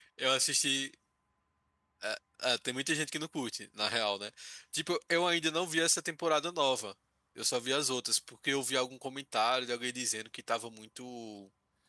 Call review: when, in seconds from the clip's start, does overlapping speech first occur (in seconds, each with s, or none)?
none